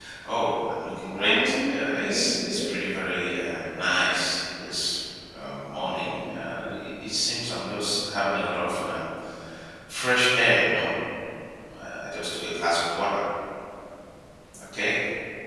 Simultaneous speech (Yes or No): Yes